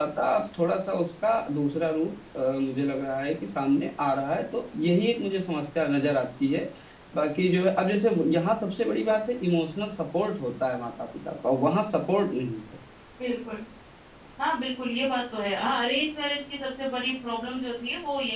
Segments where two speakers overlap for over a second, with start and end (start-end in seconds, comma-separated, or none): none